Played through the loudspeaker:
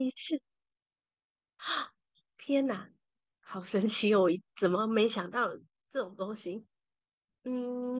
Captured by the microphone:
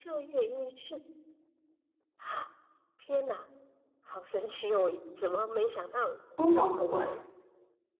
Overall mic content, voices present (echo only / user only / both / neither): both